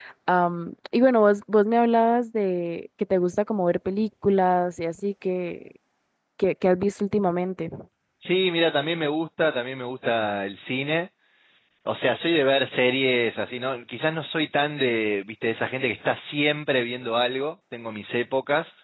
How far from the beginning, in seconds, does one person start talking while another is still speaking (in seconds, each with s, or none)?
none